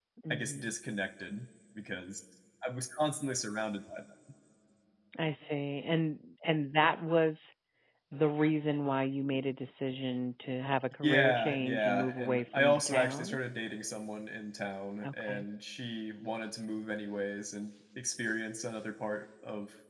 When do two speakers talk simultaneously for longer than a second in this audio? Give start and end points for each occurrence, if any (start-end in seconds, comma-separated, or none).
11.0-13.4